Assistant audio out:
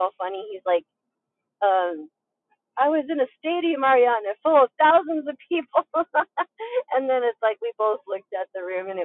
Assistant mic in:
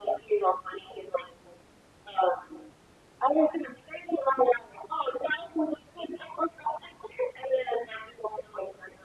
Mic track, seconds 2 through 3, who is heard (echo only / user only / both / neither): echo only